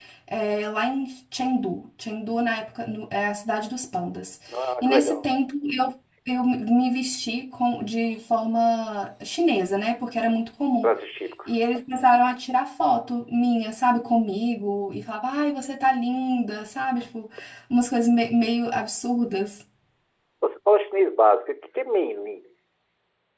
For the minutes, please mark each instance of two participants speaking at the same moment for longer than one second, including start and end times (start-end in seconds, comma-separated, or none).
none